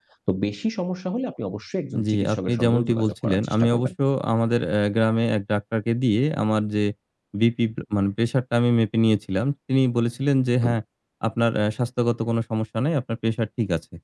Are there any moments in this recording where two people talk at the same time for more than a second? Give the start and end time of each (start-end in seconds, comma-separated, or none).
2.1-3.9